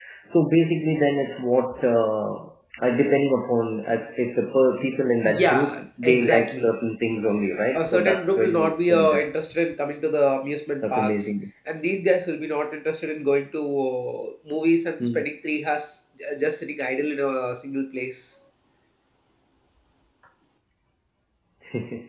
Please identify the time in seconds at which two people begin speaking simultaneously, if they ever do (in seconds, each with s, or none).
5.2 s